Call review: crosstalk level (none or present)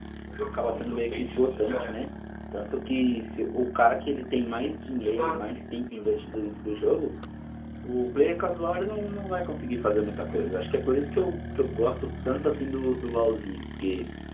present